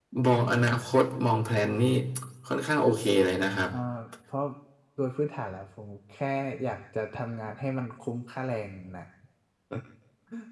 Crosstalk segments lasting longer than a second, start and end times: none

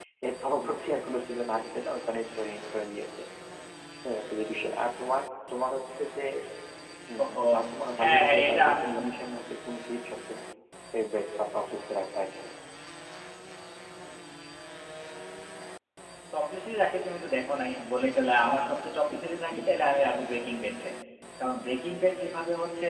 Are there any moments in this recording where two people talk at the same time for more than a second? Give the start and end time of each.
8.0-9.2

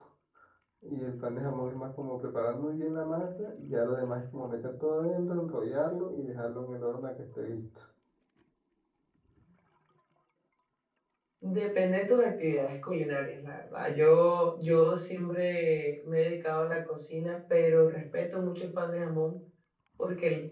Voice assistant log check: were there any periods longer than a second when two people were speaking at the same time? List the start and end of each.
none

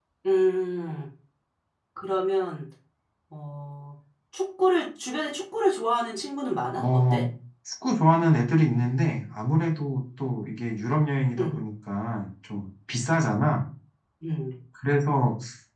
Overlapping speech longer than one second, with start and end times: none

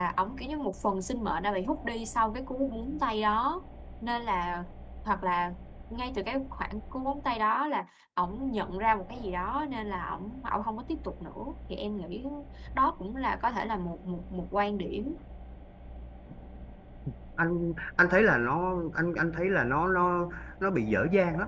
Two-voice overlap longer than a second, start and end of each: none

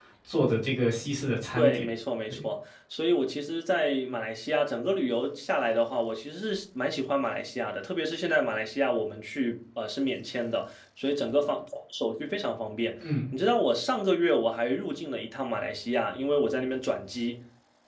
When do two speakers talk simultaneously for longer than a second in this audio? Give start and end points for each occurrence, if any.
none

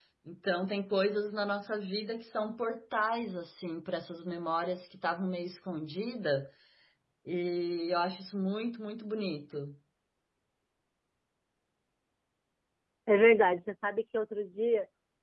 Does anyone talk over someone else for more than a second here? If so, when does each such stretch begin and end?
none

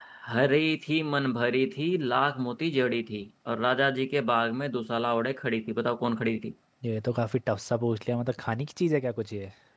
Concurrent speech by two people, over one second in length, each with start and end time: none

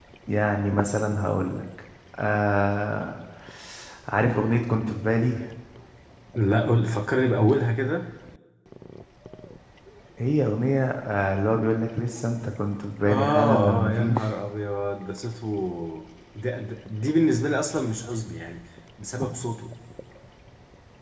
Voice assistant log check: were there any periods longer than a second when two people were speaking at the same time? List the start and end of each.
13.1-14.3

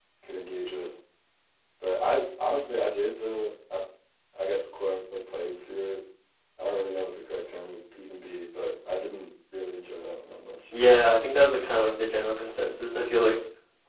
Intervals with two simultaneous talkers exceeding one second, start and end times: none

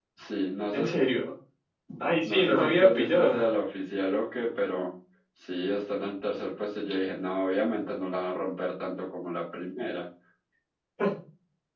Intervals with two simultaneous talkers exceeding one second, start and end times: 2.2-3.4

